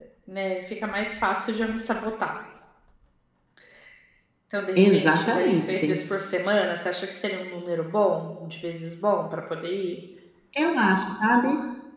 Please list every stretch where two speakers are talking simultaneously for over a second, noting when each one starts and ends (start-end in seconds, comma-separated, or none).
4.8-6.0